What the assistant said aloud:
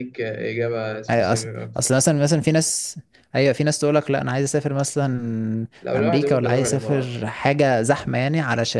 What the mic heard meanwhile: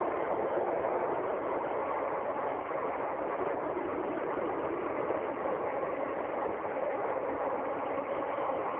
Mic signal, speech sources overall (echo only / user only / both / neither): neither